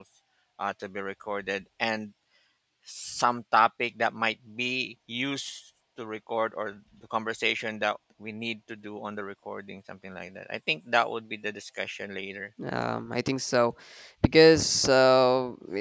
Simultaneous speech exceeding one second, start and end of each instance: none

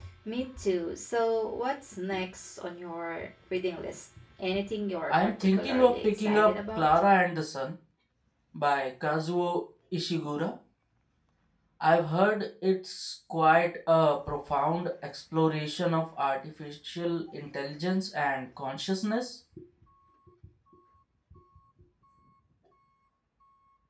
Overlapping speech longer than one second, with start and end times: 5.1-6.8

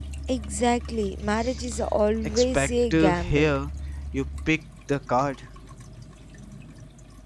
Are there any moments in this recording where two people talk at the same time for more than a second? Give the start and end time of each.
2.2-3.5

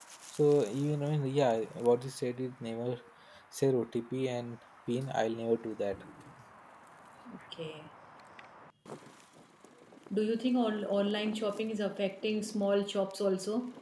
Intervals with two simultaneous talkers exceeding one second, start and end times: none

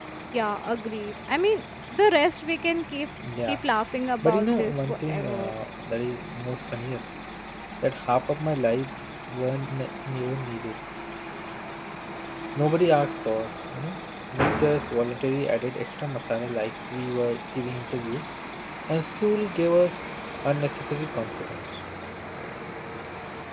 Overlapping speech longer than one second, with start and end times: 4.2-5.5

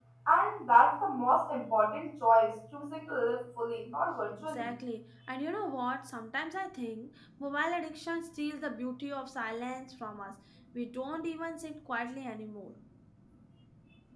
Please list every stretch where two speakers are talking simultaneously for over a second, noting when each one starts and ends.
none

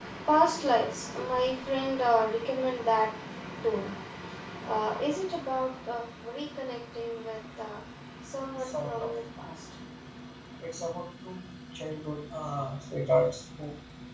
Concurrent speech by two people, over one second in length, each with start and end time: none

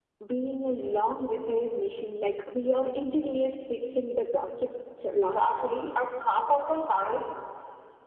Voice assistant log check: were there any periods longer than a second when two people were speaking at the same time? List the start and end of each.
none

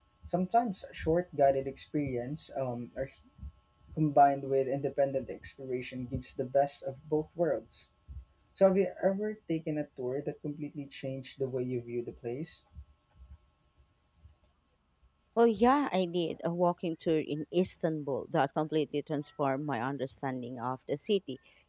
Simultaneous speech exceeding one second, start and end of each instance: none

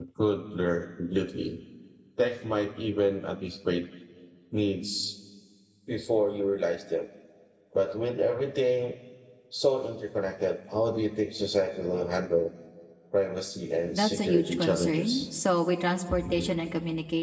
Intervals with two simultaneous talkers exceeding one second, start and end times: 13.9-15.2

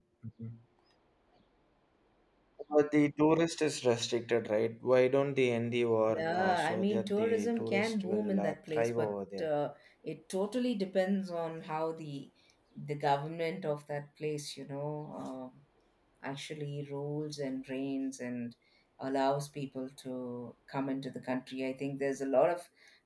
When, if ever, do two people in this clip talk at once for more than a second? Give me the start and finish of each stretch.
6.1-9.5

